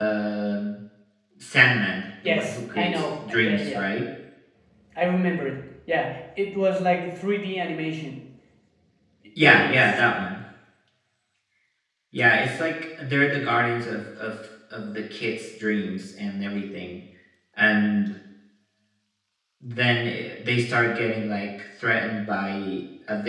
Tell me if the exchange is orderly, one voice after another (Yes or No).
No